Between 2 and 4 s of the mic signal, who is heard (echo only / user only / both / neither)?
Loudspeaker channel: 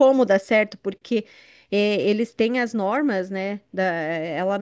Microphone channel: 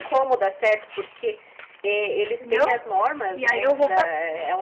both